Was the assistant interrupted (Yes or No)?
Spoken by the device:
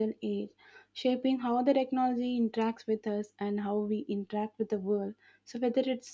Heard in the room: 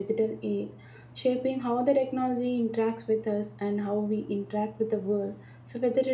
No